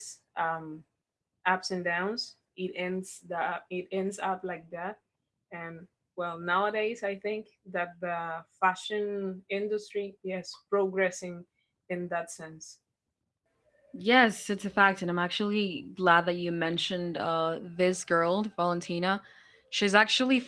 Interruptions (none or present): none